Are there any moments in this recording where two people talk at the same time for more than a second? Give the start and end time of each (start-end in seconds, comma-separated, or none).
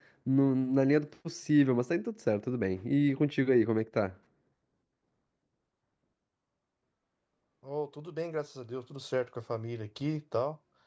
none